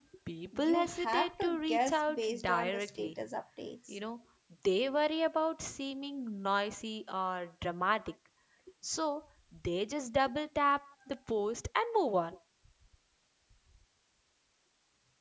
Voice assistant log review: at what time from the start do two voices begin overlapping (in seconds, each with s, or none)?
0.6 s